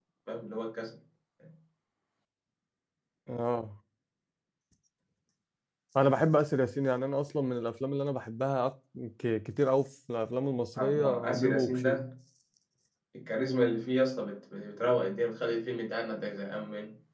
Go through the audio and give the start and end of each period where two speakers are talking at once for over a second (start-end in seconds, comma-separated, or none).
10.8-12.0